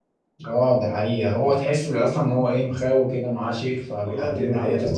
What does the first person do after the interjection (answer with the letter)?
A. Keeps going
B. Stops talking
B